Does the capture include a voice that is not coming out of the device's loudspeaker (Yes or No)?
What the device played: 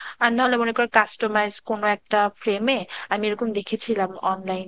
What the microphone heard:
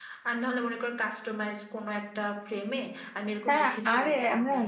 Yes